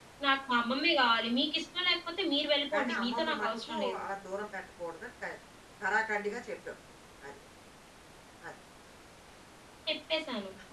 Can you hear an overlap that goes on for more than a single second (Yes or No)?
Yes